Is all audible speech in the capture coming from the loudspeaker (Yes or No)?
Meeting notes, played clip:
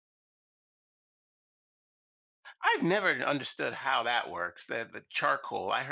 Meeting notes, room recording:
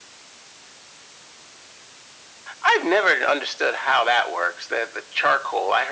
Yes